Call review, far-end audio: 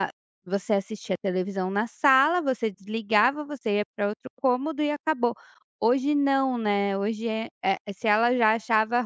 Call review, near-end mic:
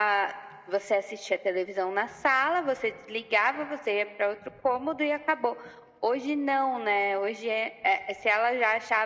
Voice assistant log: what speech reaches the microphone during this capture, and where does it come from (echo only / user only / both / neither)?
echo only